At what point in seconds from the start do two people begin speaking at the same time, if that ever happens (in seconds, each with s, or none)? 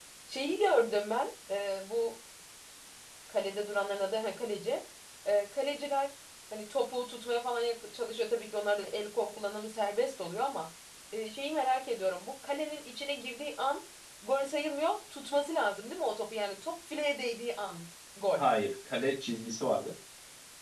none